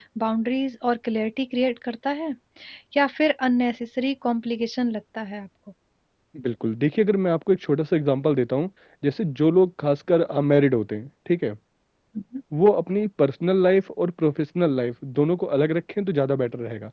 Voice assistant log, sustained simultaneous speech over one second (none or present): none